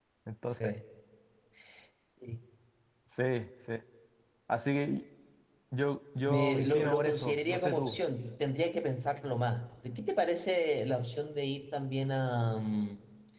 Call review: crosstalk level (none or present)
present